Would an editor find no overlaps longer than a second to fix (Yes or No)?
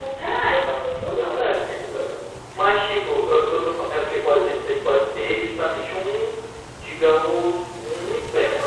Yes